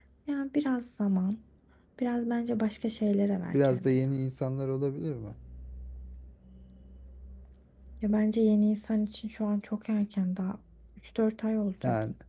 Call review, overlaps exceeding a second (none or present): none